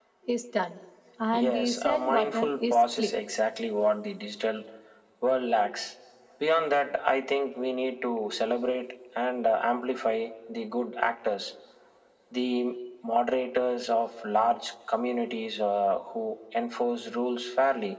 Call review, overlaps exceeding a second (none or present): present